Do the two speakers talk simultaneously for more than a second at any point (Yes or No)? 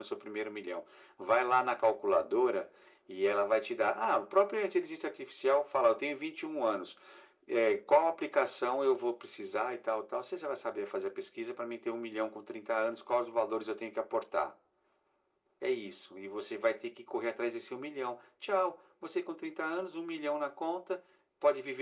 No